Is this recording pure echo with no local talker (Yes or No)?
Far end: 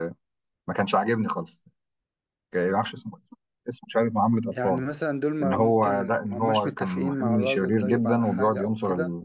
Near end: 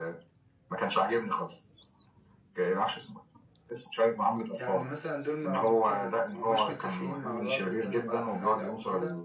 Yes